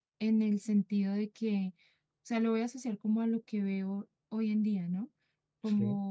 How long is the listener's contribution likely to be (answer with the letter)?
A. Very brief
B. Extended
A